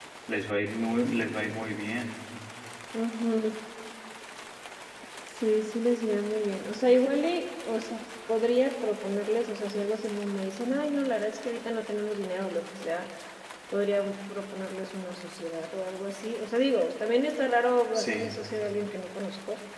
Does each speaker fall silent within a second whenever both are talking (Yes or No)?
Yes